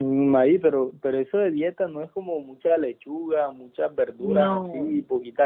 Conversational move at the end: listening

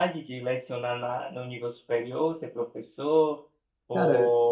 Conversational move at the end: listening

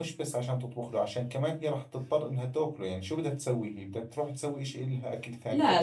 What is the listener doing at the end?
taking over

